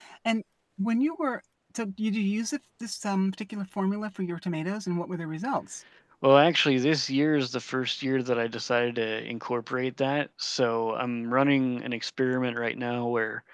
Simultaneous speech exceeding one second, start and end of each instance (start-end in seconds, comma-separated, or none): none